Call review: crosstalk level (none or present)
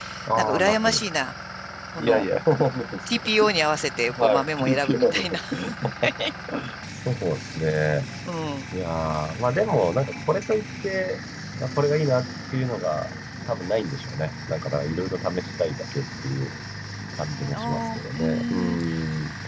present